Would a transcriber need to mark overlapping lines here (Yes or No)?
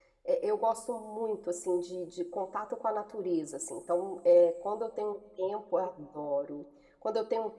No